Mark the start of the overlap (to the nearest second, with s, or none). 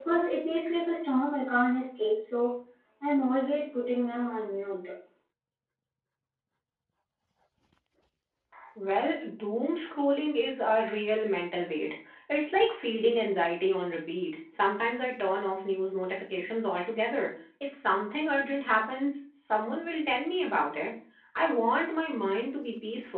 none